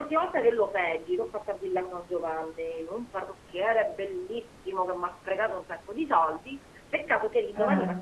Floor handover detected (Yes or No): No